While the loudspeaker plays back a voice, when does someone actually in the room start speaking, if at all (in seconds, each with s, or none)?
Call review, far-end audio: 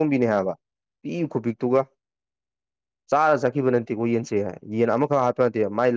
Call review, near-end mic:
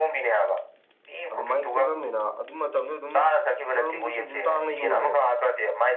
1.3 s